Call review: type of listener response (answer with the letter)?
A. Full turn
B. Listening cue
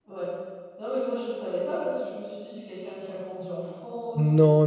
A